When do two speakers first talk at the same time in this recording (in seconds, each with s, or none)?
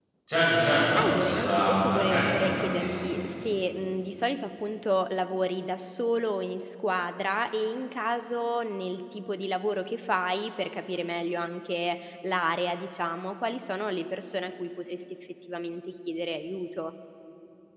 1.1 s